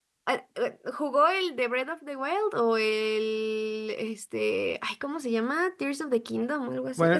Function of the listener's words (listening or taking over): taking over